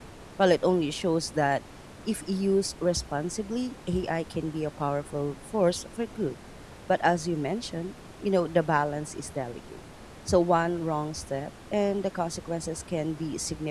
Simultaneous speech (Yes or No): No